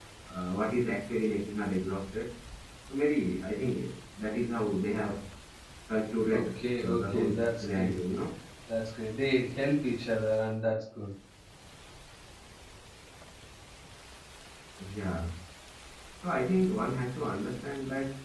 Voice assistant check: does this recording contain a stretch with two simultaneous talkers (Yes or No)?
Yes